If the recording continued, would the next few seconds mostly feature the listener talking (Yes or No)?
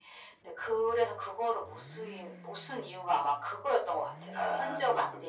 Yes